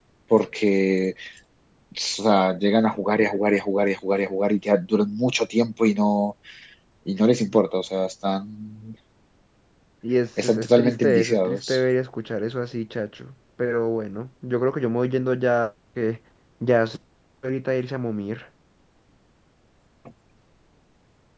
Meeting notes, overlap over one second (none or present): present